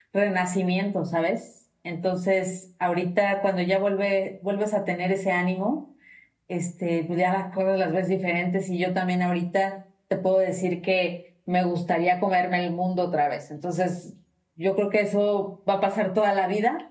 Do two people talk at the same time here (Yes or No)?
No